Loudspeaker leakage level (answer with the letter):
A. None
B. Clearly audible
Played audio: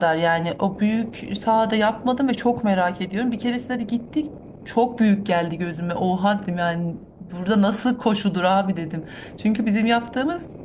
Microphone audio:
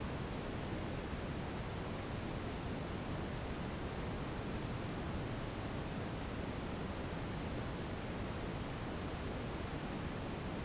A